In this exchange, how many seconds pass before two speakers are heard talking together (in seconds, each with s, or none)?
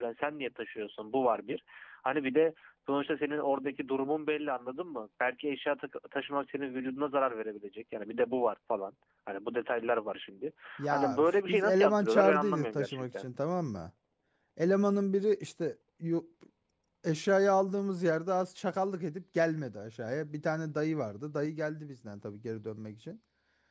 10.9 s